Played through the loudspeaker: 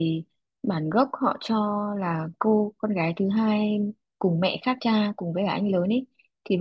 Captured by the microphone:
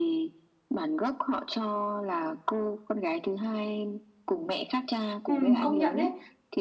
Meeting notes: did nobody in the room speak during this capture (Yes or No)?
No